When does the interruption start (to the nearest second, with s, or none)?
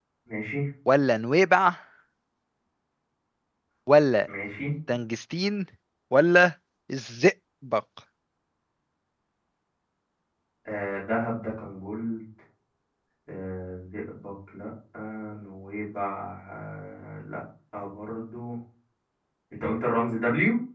none